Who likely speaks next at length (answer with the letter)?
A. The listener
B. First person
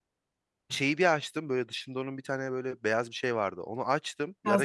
B